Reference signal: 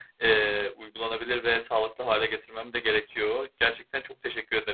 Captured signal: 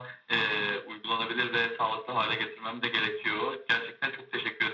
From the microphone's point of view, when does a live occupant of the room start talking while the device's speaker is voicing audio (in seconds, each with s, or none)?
none